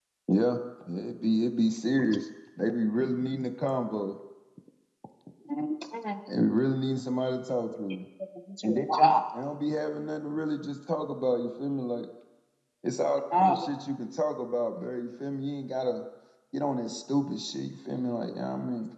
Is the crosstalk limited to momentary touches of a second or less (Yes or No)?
Yes